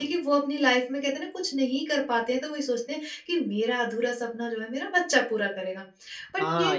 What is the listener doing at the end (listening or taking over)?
taking over